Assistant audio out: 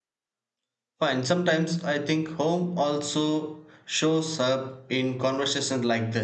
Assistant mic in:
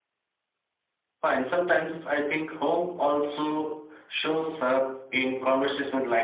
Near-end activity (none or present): none